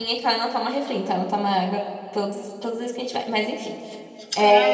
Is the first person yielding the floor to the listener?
Yes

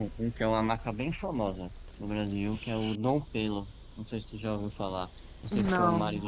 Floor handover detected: No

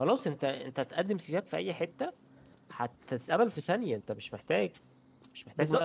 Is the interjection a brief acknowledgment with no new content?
No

